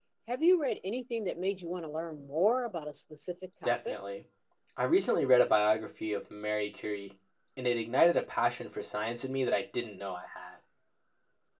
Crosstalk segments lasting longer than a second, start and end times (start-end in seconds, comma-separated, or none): none